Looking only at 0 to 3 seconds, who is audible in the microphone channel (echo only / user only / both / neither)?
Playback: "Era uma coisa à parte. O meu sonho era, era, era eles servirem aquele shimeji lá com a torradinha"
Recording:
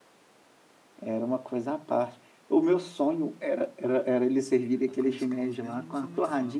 echo only